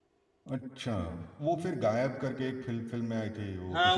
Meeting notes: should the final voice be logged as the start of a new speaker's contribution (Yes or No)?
Yes